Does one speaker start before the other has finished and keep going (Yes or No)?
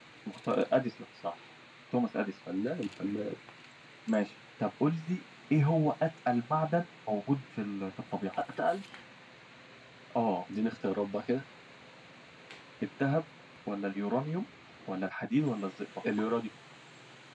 No